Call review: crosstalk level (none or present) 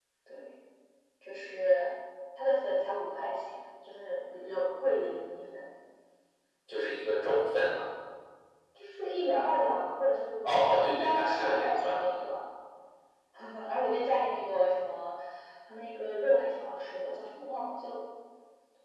present